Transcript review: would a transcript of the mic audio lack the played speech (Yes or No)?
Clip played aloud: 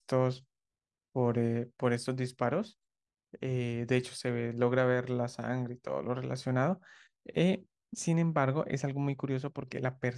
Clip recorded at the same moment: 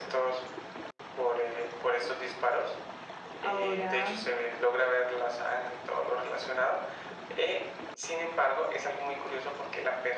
No